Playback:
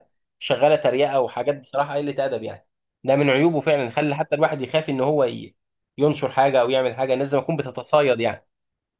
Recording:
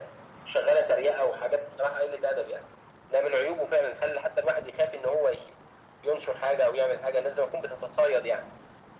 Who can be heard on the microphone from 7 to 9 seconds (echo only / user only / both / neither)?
echo only